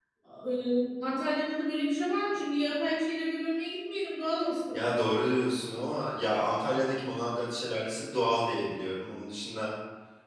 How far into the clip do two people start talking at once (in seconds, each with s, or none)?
none